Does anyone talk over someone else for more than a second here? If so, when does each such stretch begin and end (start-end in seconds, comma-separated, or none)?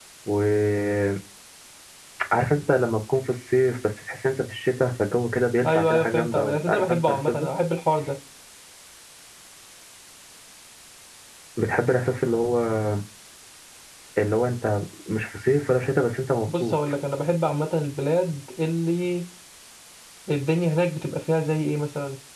5.6-7.5